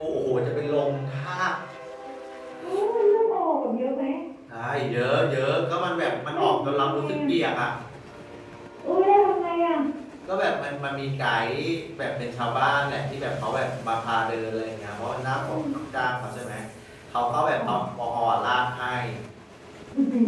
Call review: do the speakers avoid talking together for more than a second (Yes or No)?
No